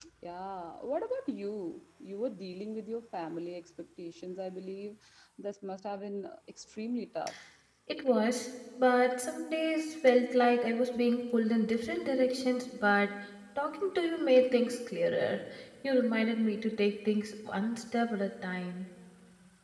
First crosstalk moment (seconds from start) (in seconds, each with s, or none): none